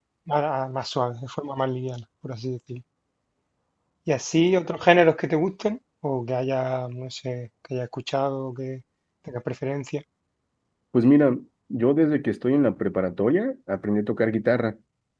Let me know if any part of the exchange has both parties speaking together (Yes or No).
No